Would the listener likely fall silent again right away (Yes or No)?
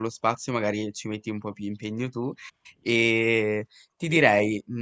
Yes